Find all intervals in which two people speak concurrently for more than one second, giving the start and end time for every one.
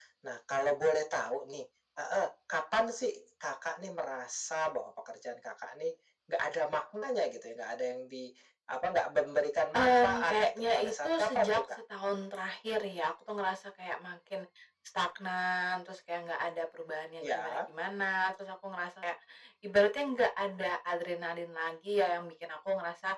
9.8-11.6

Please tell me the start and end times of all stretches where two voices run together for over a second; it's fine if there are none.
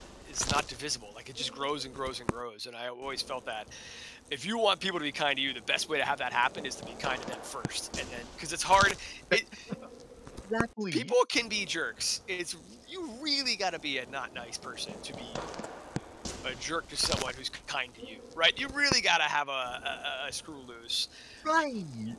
none

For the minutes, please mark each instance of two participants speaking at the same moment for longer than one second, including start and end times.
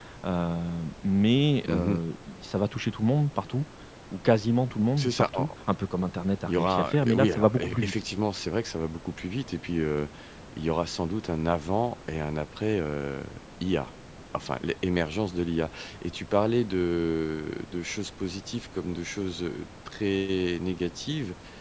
6.5-7.9

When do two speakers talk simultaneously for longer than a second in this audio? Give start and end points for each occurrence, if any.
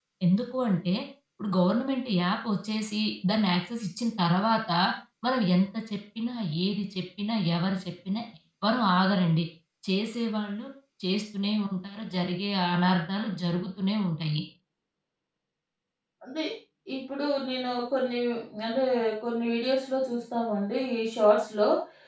none

